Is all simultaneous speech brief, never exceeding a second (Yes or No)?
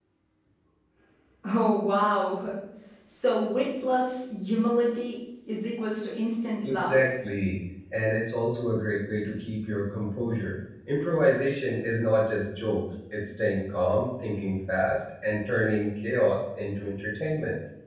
Yes